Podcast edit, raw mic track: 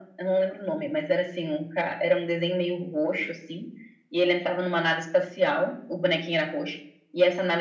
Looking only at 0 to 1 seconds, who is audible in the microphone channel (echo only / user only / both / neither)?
echo only